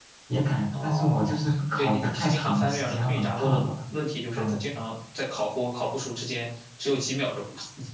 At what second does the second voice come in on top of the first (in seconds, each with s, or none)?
0.7 s